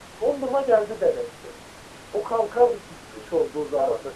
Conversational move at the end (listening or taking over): taking over